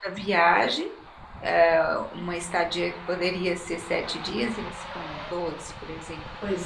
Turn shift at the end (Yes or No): Yes